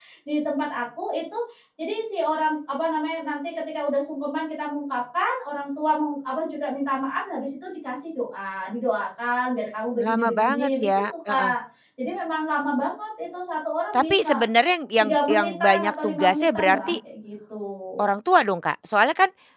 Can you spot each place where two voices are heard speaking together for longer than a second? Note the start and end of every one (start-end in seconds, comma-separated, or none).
10.0-11.5, 15.0-17.0